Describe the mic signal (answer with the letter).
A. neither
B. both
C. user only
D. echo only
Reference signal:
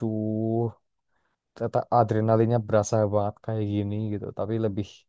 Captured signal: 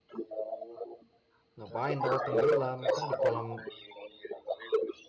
B